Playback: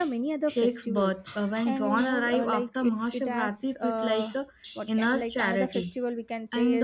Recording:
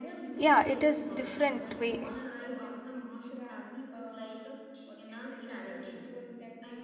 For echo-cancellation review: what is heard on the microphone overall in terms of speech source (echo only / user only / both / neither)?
both